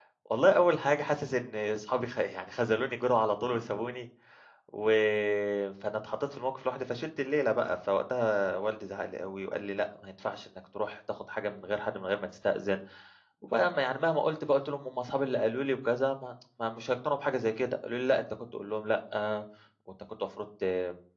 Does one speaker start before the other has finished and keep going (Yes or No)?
No